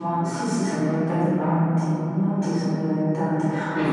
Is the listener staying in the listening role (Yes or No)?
Yes